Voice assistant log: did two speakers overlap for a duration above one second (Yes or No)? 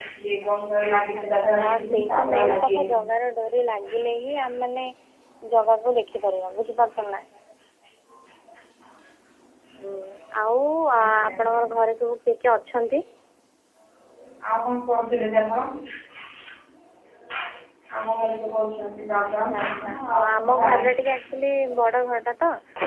Yes